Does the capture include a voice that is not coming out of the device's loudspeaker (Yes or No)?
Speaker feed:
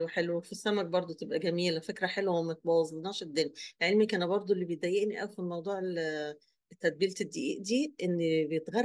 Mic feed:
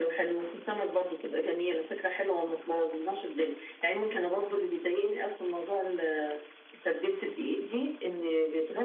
No